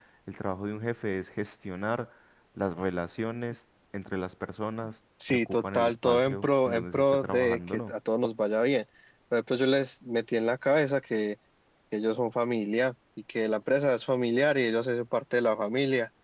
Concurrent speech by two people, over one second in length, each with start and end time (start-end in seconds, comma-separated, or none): 5.3-7.9